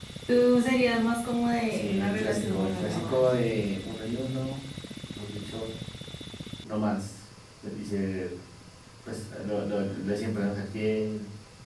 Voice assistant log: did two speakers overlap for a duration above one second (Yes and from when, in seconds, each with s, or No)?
Yes, from 1.6 s